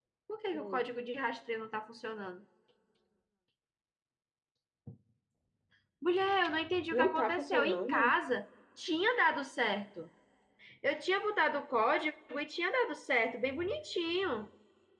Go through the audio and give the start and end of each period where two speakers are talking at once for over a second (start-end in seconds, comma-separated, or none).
6.9-8.1